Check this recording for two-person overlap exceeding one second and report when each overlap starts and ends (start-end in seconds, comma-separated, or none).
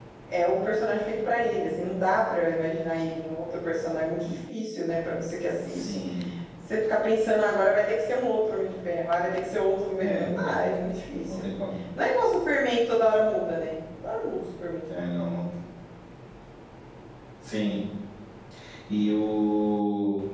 none